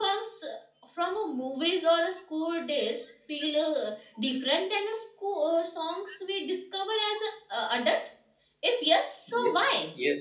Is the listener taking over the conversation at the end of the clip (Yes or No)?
Yes